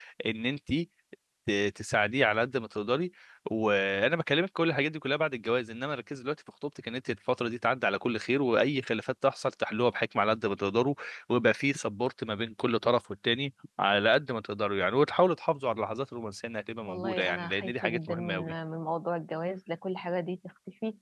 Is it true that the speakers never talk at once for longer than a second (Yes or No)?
No